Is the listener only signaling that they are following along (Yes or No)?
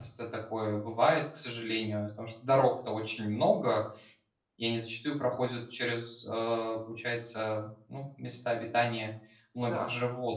No